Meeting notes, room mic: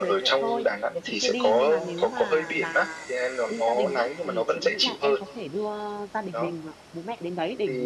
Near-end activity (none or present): present